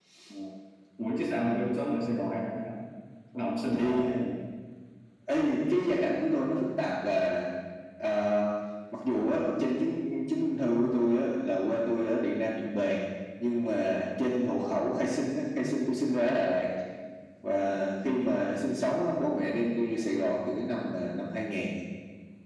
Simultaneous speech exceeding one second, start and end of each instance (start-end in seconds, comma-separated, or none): none